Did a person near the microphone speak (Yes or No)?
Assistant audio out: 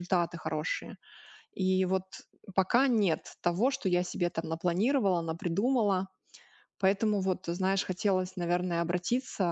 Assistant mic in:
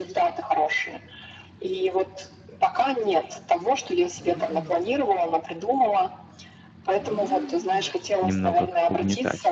Yes